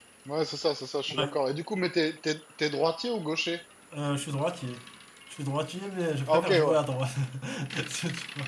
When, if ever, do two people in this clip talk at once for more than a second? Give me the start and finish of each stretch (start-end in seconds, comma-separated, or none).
none